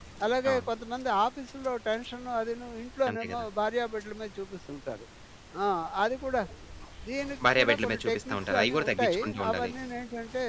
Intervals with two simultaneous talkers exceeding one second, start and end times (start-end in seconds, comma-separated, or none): 7.5-9.7